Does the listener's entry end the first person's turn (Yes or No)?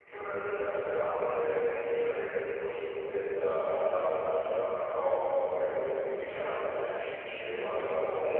Yes